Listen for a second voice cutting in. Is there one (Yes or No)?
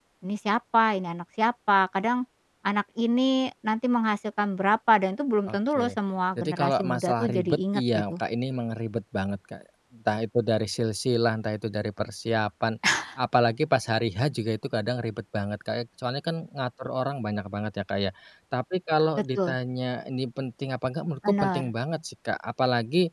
Yes